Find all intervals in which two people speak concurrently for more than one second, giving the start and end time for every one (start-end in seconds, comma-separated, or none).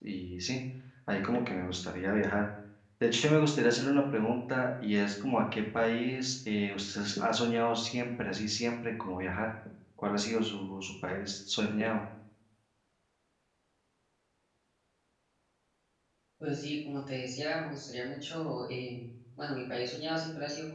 none